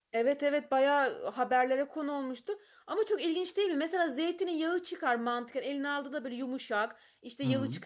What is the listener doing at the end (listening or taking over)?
listening